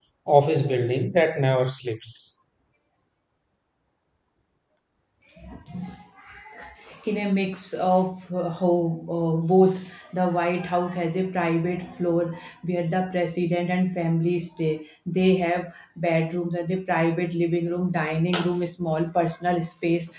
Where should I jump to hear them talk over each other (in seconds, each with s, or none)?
none